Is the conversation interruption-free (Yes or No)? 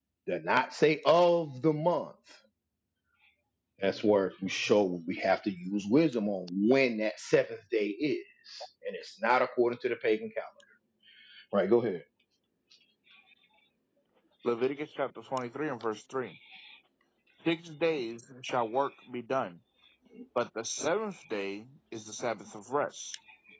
Yes